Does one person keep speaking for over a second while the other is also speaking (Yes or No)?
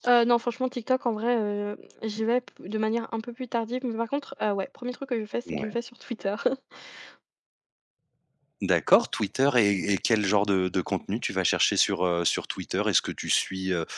No